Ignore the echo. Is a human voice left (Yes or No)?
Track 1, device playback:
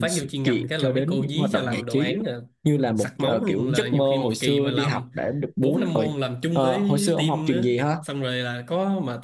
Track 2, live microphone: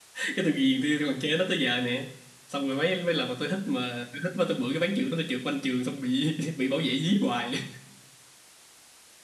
Yes